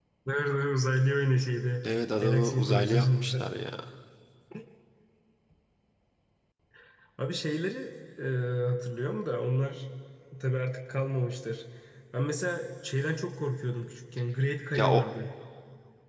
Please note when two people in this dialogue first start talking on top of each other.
2.2 s

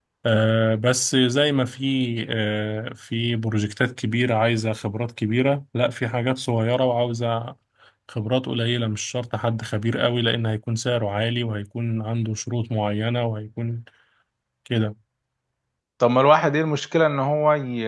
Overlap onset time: none

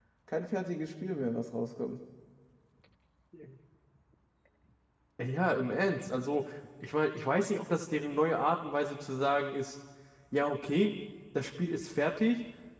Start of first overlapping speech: none

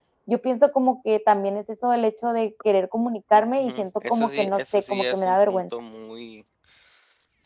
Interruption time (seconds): 3.3 s

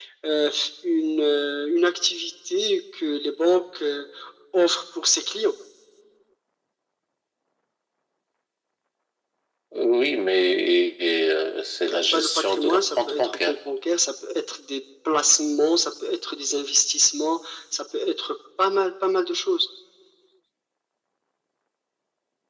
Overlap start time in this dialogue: 11.9 s

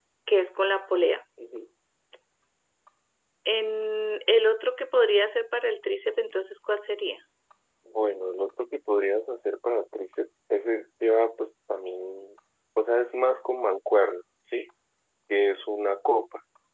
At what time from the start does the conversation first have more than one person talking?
none

